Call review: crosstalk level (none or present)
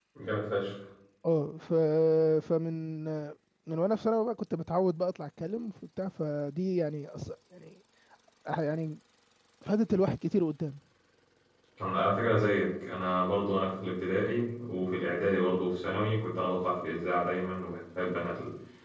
none